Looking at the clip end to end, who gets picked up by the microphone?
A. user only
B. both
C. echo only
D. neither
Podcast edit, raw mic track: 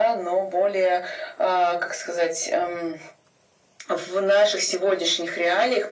C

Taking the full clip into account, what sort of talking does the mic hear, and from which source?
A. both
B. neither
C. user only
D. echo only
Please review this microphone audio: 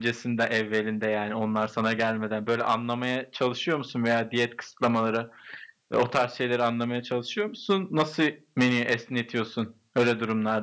C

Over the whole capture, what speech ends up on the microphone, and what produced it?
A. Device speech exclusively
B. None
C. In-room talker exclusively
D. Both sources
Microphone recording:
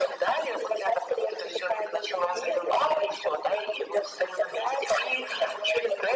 A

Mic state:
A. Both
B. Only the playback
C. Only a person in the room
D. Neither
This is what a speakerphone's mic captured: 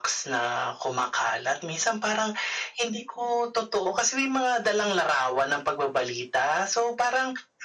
B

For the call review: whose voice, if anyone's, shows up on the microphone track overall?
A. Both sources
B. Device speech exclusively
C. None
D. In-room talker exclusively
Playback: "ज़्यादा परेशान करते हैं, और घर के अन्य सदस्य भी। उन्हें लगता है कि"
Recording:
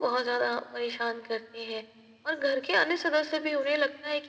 B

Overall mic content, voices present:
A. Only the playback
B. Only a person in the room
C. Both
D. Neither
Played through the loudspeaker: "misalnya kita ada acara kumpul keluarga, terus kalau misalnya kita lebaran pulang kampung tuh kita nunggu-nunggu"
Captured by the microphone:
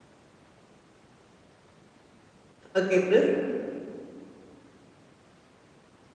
B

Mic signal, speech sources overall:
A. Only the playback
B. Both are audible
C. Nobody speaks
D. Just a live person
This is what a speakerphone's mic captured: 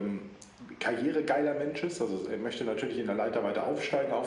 A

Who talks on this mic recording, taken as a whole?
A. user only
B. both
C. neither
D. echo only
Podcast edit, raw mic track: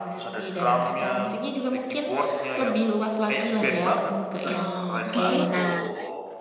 B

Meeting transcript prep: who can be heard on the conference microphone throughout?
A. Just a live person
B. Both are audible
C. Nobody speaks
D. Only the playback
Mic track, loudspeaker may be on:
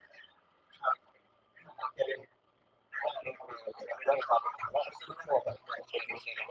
D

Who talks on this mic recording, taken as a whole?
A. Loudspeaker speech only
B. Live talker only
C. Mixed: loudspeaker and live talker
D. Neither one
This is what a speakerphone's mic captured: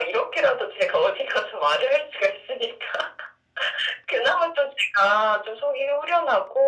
A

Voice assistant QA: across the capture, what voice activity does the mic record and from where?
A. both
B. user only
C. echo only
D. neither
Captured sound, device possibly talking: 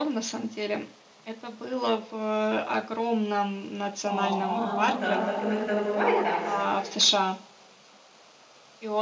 A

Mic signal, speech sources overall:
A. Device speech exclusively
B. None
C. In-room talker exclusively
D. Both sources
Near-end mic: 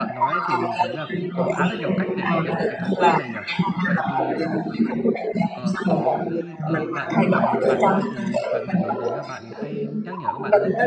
D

